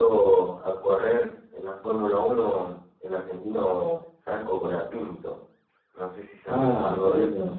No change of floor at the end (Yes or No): No